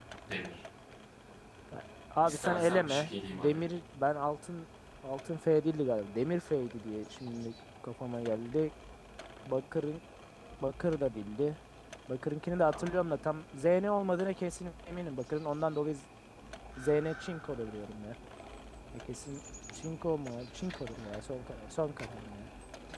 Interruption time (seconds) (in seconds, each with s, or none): 2.2 s